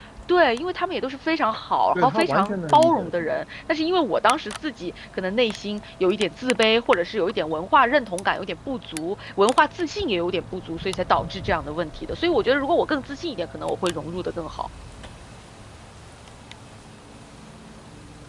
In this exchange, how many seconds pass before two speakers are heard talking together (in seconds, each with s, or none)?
2.0 s